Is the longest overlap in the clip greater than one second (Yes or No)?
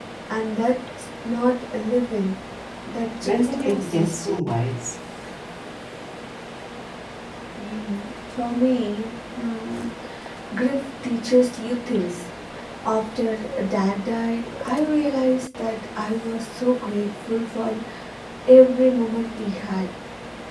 Yes